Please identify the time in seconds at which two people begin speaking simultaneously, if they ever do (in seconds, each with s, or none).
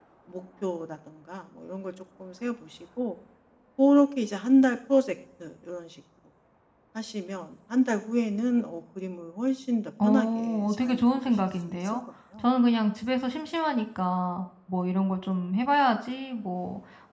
10.0 s